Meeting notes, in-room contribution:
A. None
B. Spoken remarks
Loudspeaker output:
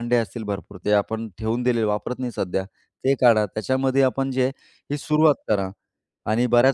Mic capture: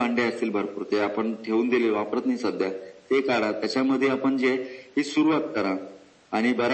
A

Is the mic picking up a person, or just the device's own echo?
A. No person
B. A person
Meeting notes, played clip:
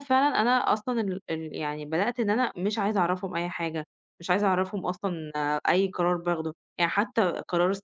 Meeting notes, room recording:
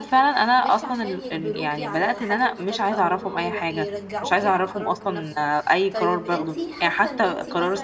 B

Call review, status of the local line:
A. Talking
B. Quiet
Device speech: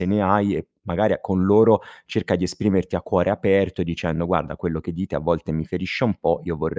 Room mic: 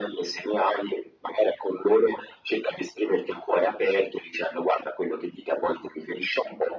B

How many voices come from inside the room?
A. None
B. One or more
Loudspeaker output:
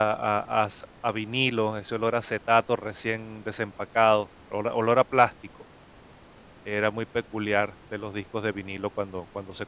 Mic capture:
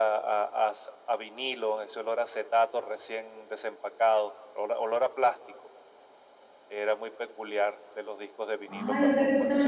B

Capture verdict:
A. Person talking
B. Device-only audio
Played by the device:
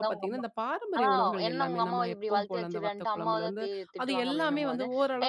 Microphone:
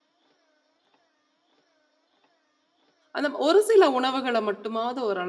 A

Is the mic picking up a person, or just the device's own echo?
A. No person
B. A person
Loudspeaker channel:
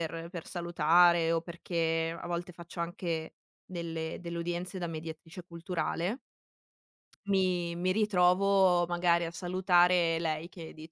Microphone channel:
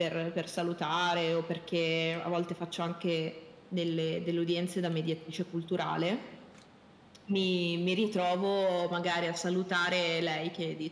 A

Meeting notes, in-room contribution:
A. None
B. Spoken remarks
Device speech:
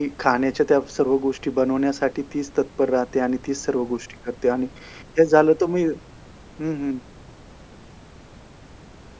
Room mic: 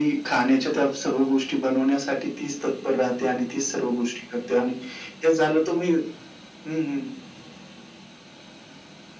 A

